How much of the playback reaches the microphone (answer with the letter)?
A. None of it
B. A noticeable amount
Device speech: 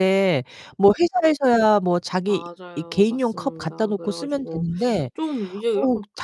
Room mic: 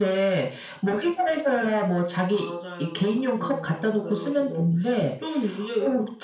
B